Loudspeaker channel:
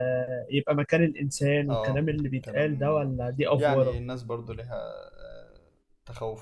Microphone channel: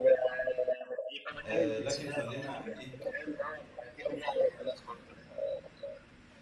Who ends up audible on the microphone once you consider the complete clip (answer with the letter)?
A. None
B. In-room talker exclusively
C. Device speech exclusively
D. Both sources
D